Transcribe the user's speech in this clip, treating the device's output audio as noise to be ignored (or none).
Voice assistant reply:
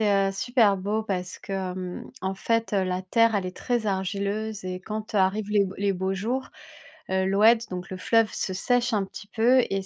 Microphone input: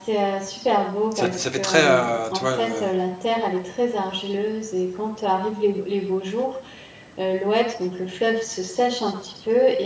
ça fait ça fait très, heu, tu vois, heu,